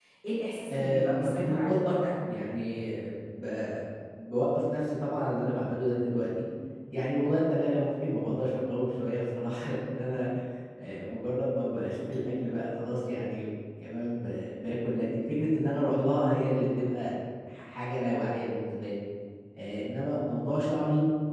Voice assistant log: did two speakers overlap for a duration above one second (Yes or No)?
Yes